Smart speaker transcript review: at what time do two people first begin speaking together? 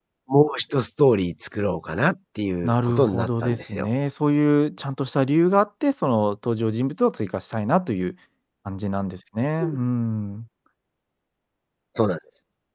2.6 s

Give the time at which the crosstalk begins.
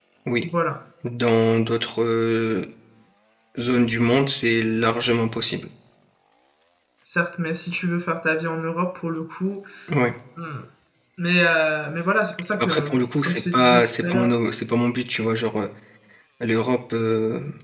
12.5 s

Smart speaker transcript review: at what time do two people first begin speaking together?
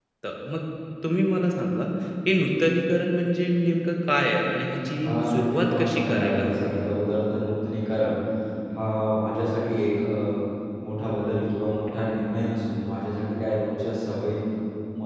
5.0 s

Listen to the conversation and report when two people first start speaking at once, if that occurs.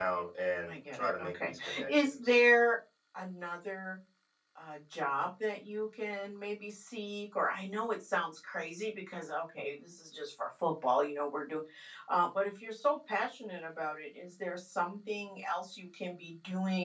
0.7 s

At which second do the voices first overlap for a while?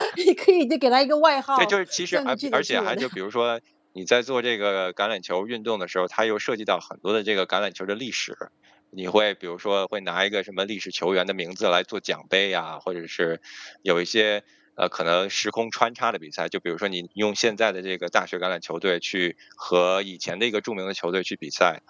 1.6 s

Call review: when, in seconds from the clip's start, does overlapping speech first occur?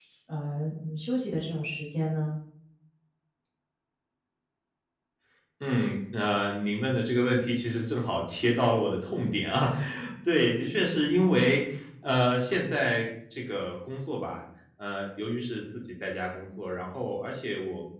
none

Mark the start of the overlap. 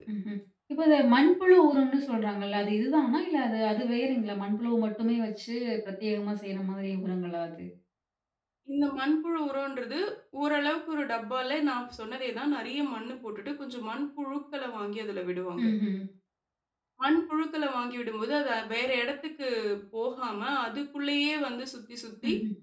none

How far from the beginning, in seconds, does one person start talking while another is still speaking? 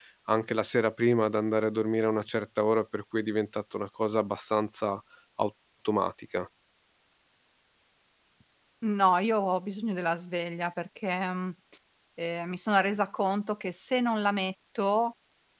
none

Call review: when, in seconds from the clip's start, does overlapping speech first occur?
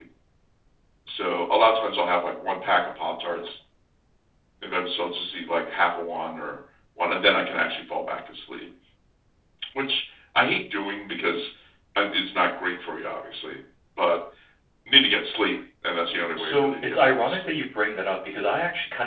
16.1 s

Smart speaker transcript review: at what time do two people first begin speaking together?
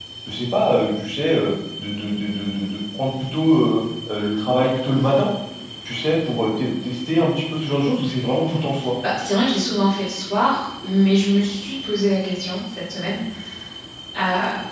none

